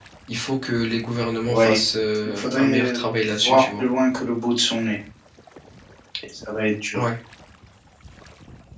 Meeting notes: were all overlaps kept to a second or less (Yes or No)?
No